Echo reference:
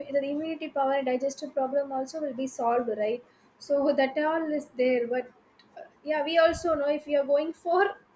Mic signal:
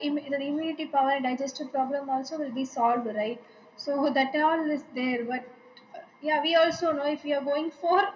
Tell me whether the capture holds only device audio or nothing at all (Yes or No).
Yes